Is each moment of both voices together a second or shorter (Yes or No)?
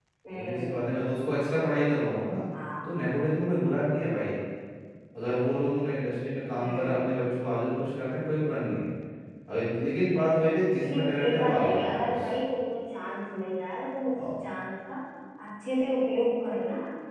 No